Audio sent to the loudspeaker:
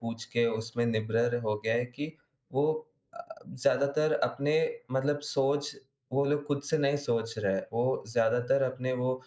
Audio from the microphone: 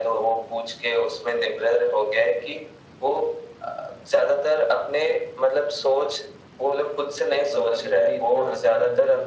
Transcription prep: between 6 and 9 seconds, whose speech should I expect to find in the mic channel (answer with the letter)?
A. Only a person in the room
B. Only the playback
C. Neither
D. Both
D